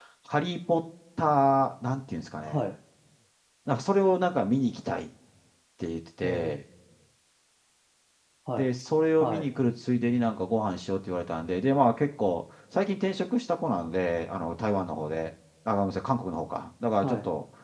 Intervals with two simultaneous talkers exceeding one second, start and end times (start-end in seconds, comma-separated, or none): none